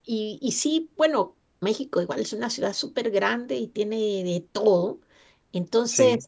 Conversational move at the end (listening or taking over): listening